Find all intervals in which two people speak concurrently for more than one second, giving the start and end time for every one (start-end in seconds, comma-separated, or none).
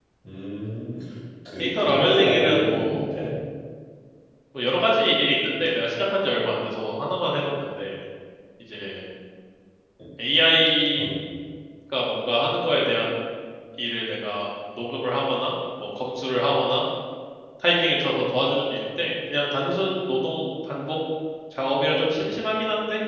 1.6-3.0